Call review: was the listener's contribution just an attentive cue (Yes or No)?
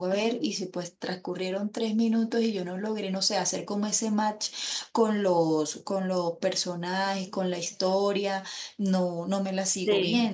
No